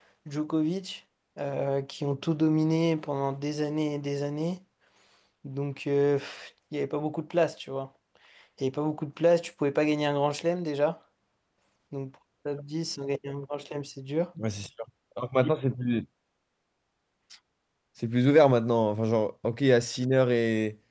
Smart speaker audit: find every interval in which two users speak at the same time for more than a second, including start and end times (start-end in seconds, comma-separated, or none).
none